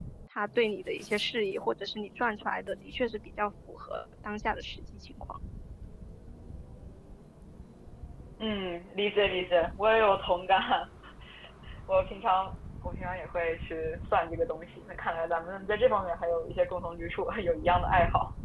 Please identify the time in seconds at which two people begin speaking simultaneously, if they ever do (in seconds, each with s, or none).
none